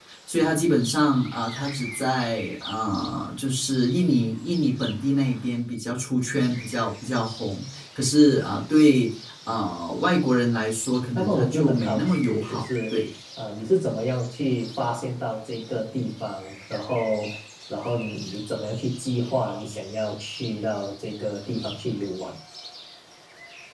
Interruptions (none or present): present